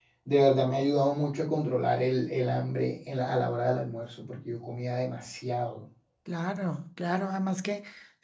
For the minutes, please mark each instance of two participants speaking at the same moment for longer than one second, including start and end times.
none

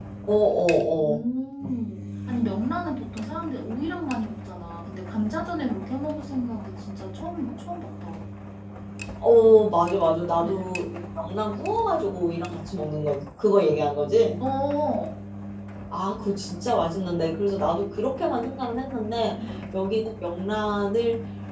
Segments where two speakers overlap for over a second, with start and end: none

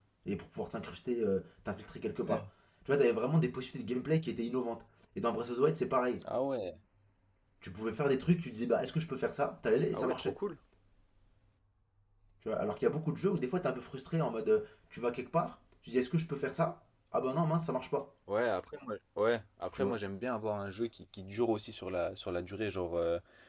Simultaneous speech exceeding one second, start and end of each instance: none

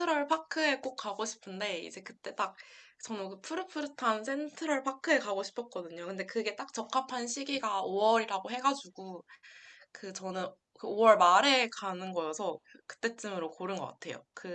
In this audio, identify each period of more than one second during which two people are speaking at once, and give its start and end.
none

